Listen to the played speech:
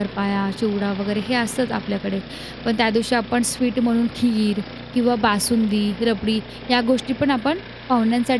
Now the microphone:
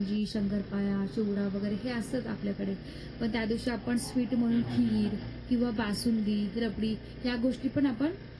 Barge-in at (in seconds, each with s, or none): 4.5 s